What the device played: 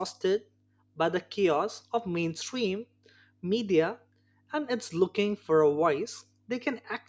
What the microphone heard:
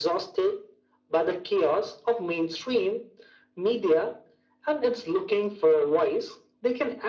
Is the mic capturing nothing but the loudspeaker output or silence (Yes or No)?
Yes